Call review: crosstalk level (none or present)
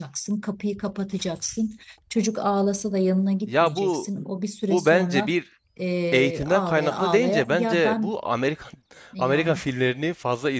present